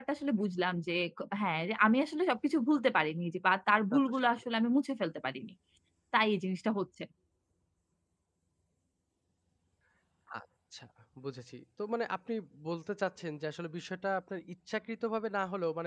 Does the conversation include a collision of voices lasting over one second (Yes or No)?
No